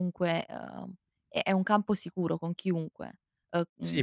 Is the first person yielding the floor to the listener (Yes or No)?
Yes